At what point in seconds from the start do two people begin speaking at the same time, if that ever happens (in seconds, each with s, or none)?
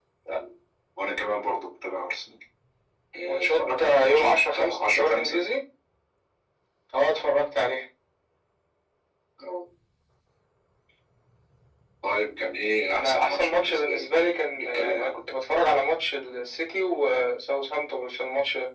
3.2 s